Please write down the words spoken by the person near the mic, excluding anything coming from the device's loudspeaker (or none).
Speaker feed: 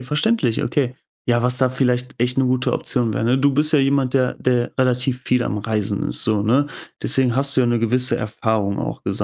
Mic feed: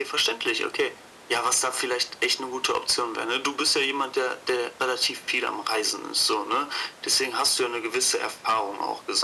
none